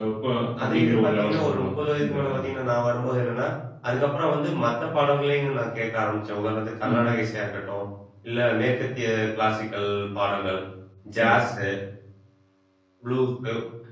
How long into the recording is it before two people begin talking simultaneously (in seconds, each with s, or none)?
0.6 s